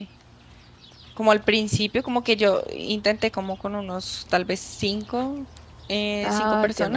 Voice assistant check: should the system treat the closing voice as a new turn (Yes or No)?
No